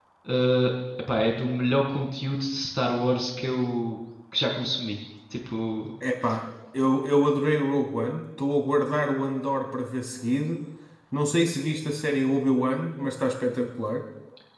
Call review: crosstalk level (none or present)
none